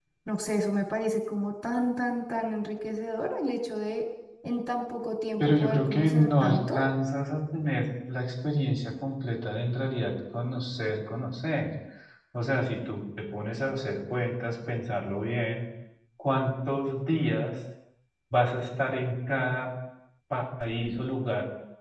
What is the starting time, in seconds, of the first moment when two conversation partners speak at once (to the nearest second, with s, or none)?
5 s